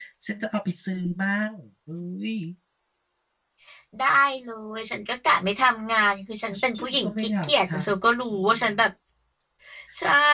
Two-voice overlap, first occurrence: 6.5 s

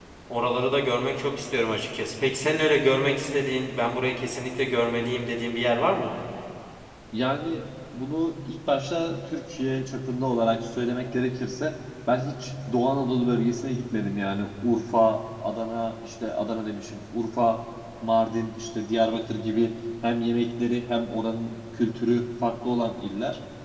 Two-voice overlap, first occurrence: none

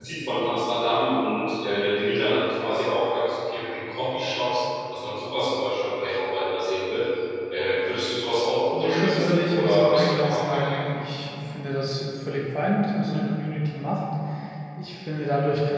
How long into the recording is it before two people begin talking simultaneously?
8.7 s

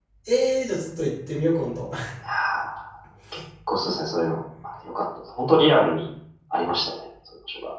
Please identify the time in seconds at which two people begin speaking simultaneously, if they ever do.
none

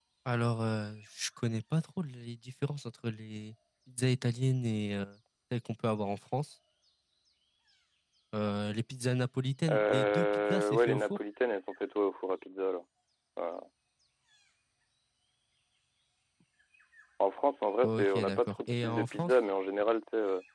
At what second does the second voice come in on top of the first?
9.7 s

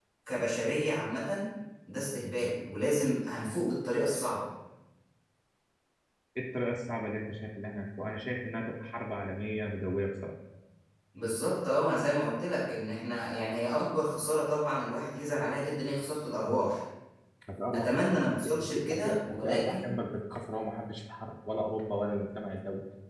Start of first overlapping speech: 17.7 s

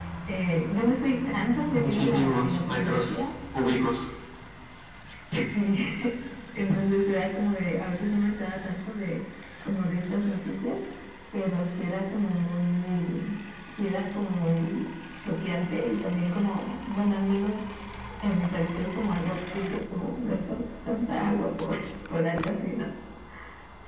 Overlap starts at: 1.7 s

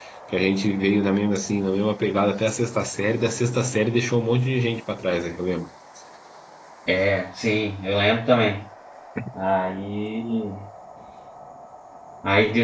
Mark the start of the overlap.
none

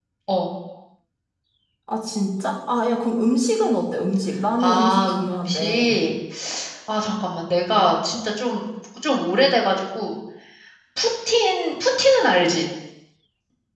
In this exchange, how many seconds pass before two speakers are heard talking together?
4.6 s

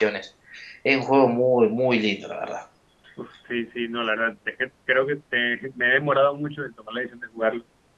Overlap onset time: none

